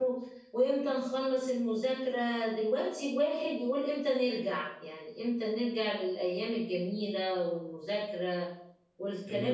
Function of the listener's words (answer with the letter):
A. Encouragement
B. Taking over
B